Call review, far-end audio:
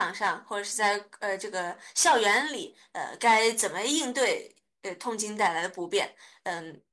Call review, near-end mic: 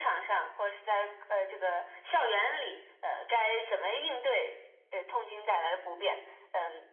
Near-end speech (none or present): none